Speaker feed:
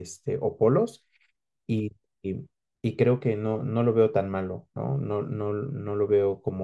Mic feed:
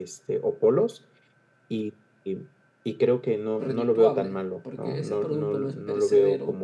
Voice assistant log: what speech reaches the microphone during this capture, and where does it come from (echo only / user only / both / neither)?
both